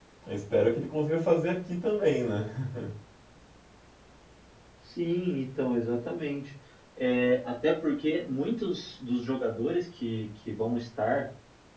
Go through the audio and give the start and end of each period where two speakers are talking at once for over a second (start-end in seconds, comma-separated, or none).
none